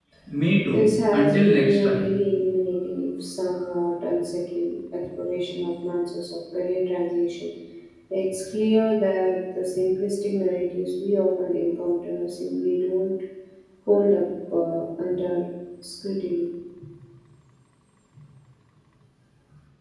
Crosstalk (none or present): present